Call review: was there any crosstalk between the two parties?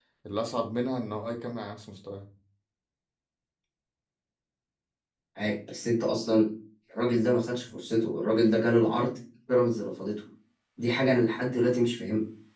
No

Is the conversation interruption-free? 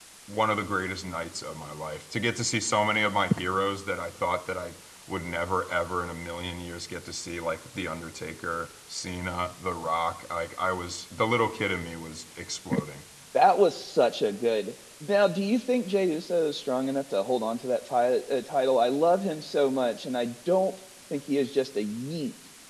Yes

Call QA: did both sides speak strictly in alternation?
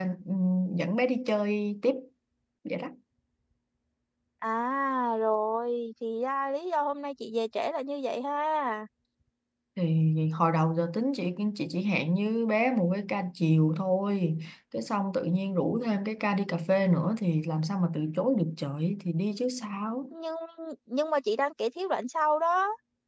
Yes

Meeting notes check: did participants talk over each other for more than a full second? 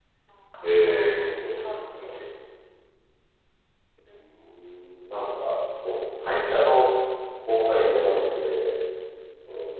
Yes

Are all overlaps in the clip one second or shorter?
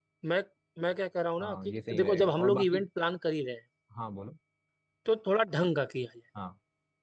No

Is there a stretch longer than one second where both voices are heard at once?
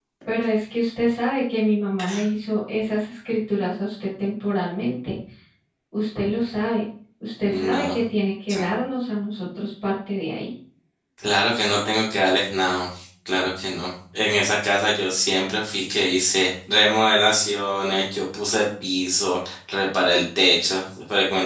No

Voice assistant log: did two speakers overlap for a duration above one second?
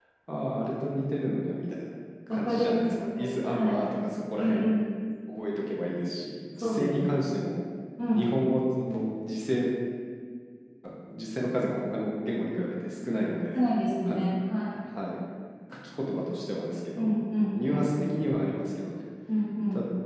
Yes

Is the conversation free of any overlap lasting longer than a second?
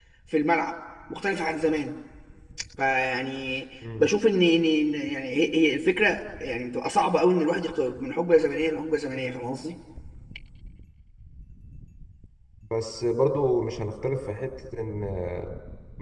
Yes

